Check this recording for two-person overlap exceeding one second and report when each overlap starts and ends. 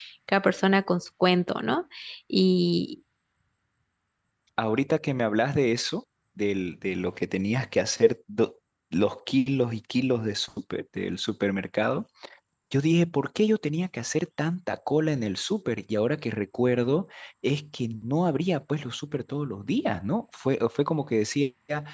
none

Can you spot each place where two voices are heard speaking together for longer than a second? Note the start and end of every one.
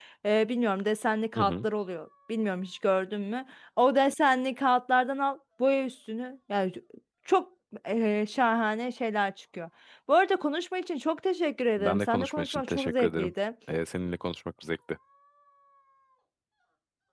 11.8-13.3

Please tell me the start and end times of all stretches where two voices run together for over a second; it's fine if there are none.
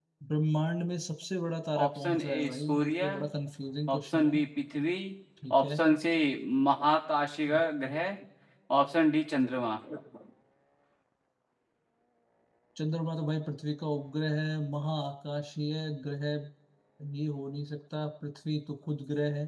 1.8-3.1

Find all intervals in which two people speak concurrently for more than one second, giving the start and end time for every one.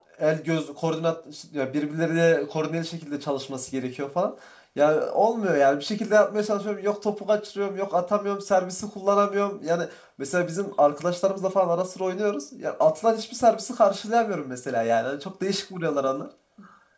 none

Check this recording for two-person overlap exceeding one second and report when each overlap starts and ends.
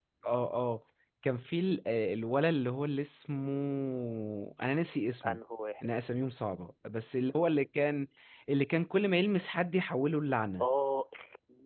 none

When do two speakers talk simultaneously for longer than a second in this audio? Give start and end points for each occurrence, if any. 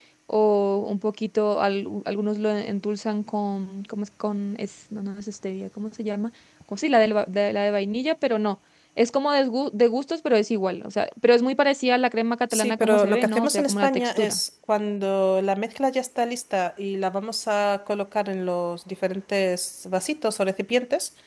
12.5-14.4

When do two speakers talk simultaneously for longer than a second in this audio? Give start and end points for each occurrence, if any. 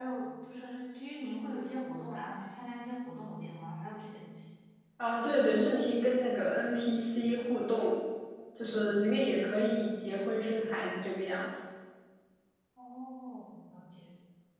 none

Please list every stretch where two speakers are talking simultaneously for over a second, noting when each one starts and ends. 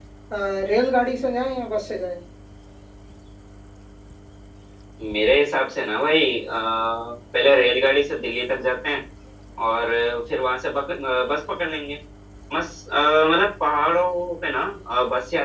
none

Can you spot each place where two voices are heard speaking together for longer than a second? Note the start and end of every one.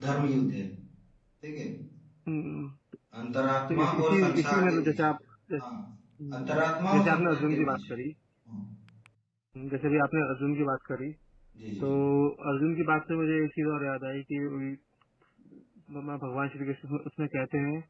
3.7-5.0, 6.4-7.8

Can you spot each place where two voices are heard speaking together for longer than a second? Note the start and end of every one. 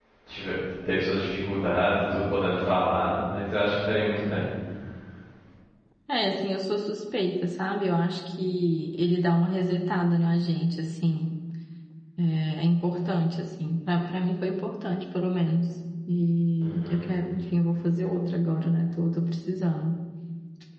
none

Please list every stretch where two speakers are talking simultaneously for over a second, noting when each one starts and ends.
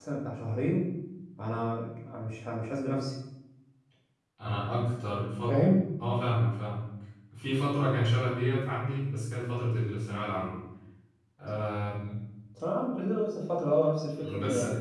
none

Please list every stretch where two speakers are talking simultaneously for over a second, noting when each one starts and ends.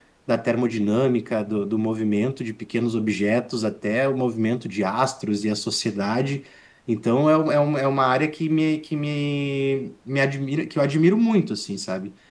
none

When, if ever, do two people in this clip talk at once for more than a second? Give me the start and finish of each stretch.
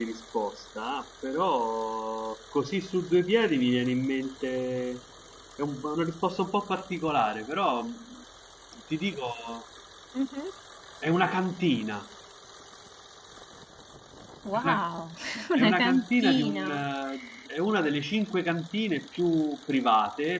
15.6-16.8

